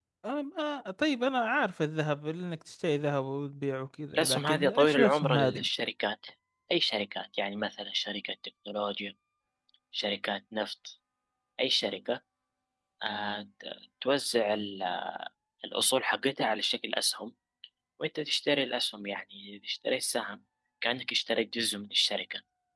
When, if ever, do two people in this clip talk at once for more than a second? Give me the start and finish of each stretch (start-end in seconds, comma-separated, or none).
4.1-5.7